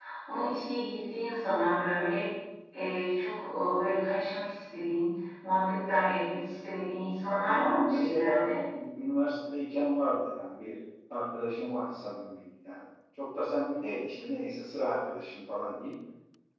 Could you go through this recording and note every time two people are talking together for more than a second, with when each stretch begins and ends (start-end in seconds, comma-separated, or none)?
7.3-8.5